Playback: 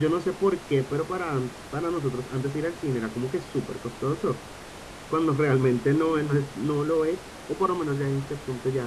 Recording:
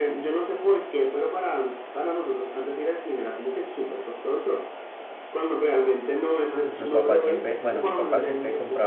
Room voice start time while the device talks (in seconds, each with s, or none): 6.6 s